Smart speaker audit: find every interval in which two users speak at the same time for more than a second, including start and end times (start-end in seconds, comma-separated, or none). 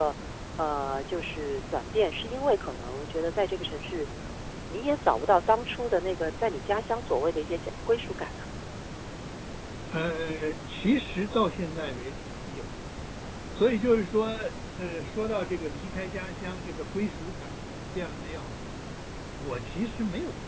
none